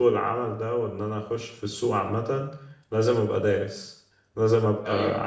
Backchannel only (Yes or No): Yes